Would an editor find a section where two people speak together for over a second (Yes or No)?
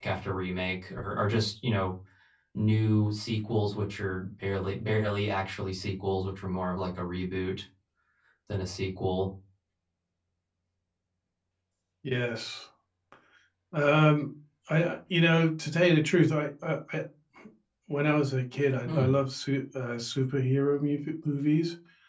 No